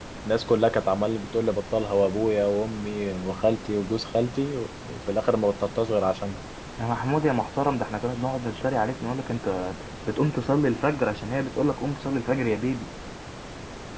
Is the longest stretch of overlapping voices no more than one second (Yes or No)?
Yes